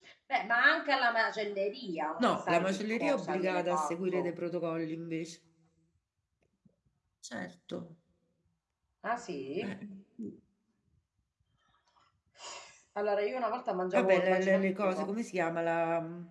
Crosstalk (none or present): present